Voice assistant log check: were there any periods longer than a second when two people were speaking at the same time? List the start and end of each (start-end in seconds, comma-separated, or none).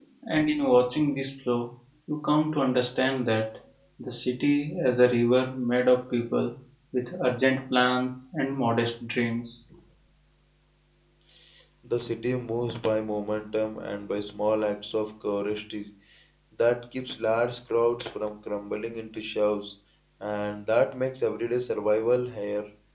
none